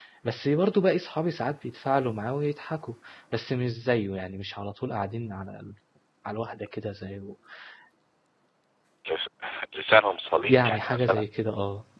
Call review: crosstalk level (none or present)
present